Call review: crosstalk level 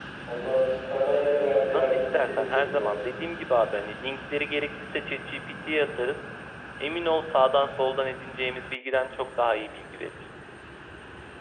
present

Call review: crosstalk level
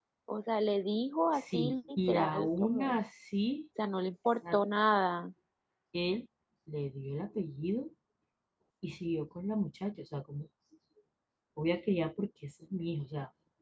present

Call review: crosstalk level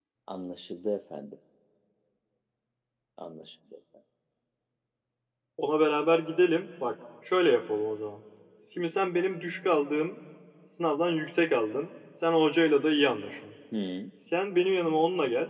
none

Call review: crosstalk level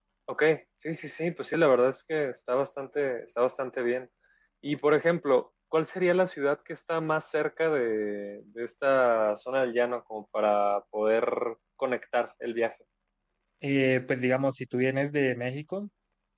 none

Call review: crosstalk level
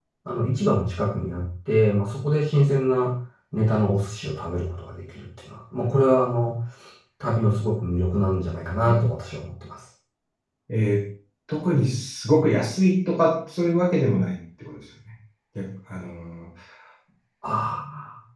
none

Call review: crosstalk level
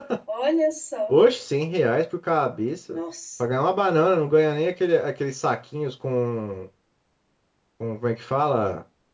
none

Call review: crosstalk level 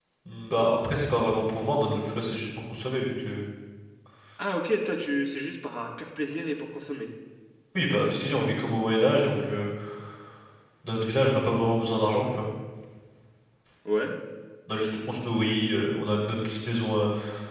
none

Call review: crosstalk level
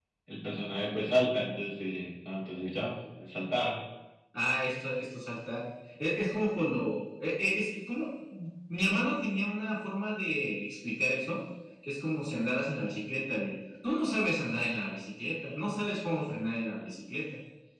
none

